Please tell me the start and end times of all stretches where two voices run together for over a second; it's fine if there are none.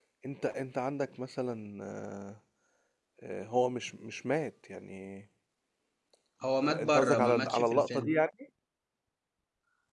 6.6-8.1

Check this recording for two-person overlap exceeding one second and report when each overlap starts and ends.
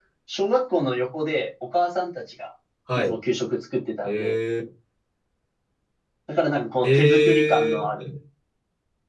6.8-8.1

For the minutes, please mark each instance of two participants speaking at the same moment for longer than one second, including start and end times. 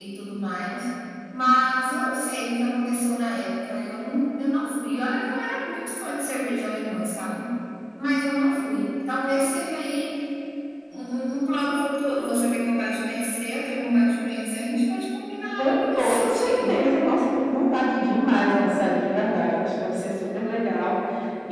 15.6-16.9

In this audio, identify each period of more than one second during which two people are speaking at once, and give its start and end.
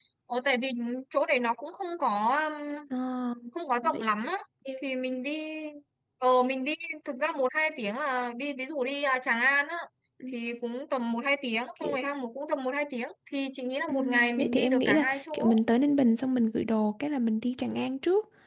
13.9-15.5

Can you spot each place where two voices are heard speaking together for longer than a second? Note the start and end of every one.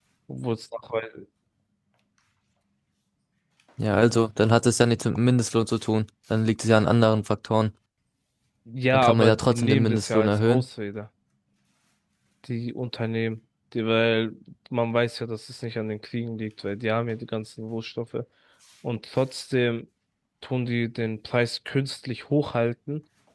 8.9-10.6

